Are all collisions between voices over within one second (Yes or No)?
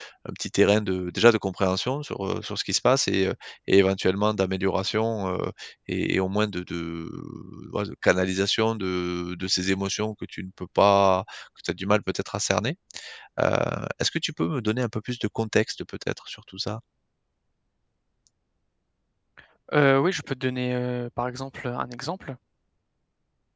Yes